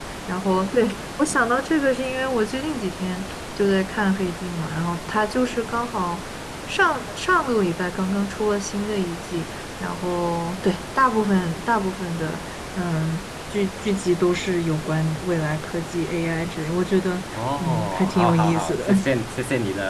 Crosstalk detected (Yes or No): Yes